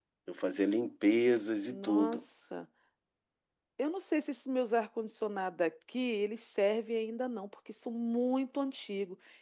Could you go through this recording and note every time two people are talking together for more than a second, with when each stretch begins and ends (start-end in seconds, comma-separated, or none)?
none